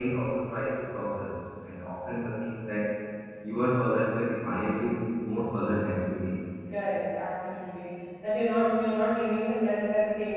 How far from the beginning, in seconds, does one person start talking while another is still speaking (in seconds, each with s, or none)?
none